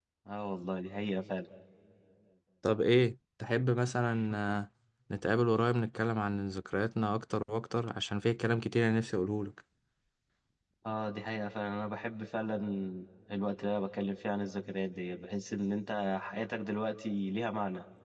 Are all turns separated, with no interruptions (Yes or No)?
Yes